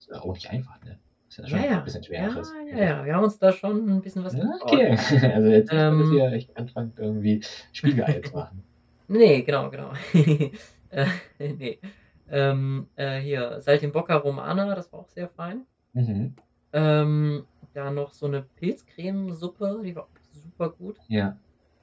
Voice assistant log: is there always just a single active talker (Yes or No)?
No